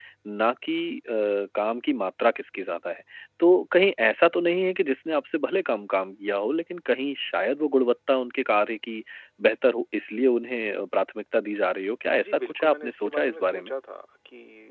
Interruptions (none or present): present